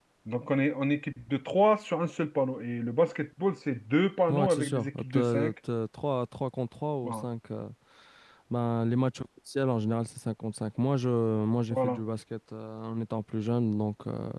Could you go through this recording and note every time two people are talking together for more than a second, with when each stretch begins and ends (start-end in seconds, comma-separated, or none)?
4.3-5.5